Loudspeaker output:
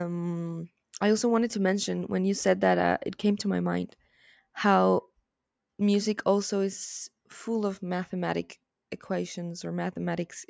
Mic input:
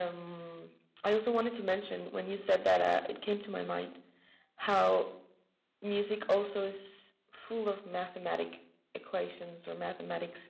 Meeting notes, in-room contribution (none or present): none